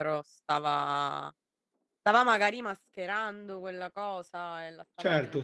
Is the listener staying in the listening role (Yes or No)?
No